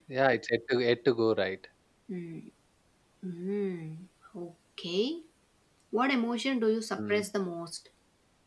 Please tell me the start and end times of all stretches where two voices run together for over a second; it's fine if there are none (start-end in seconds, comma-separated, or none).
none